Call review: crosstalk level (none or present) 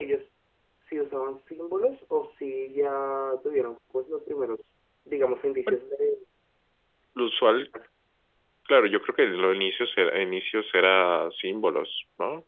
none